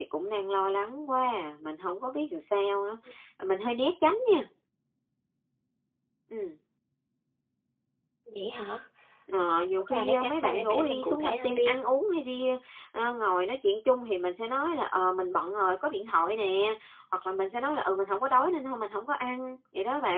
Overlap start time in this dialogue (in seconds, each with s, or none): 9.9 s